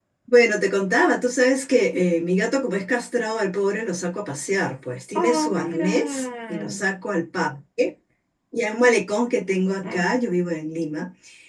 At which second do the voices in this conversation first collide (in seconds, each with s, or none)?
5.2 s